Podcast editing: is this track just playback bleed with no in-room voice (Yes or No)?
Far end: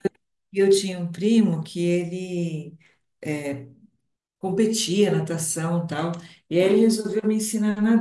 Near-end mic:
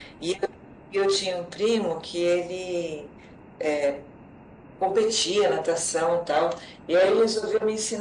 Yes